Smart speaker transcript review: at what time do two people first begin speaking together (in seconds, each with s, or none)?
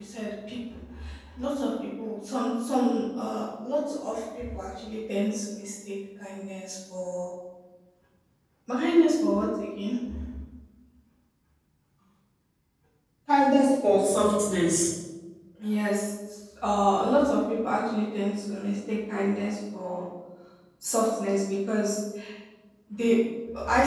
none